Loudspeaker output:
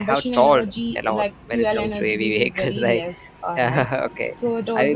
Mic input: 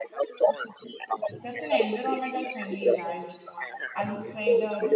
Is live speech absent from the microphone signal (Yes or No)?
No